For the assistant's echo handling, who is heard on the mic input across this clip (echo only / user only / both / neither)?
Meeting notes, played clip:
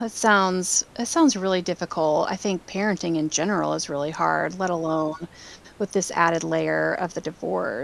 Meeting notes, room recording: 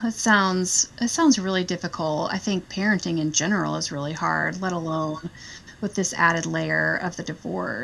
echo only